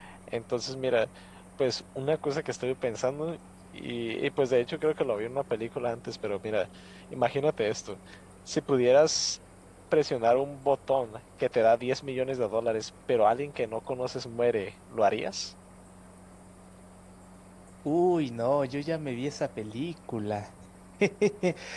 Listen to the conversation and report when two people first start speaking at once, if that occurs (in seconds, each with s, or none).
none